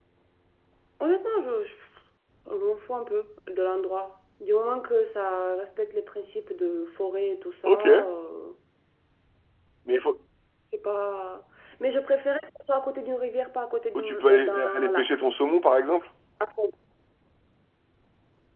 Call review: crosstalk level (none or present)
present